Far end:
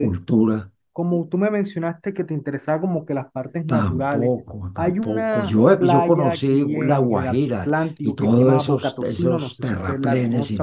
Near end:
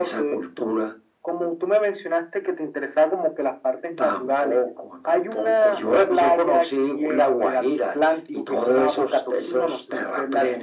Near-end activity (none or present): none